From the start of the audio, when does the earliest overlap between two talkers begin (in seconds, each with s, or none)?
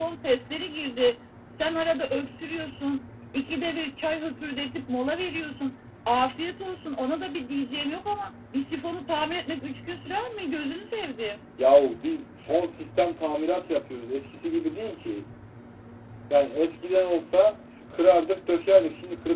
none